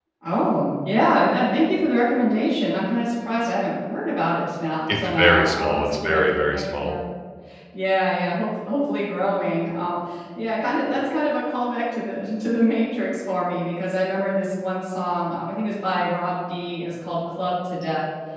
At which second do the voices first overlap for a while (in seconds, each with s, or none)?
4.9 s